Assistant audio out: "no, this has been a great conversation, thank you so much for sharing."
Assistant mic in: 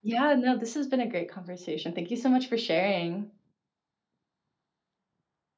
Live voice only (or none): none